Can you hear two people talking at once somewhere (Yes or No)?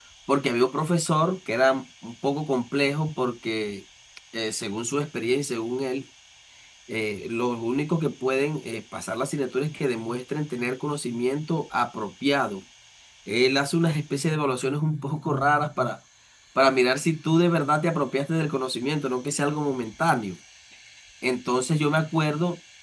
No